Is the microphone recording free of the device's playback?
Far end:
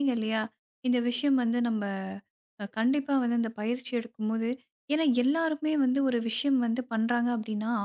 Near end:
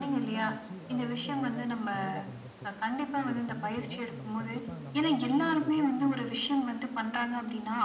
No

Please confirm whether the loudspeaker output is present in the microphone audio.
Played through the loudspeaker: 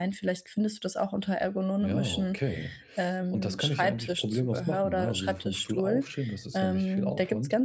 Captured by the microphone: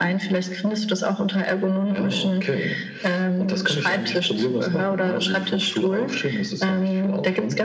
Yes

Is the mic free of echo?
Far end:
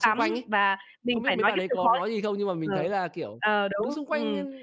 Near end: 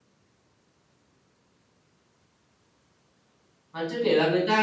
Yes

